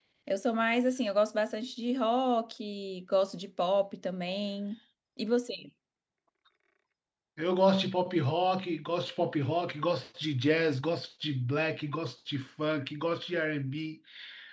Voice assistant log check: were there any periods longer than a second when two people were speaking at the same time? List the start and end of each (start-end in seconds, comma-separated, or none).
none